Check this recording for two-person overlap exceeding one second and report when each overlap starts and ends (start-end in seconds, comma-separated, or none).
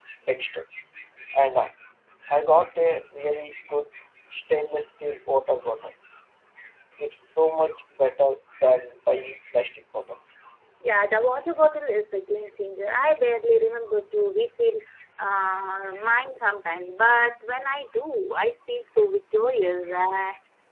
none